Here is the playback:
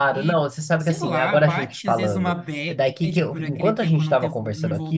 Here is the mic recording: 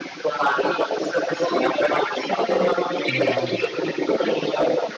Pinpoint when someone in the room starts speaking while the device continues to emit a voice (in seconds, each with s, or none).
3.0 s